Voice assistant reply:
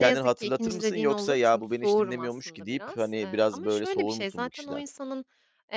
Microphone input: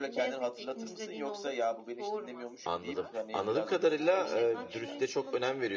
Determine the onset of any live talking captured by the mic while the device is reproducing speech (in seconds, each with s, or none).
2.6 s